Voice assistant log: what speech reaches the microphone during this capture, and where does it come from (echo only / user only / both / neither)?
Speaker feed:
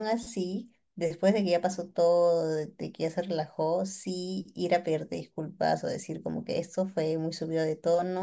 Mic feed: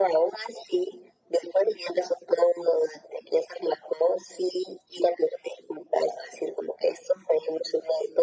echo only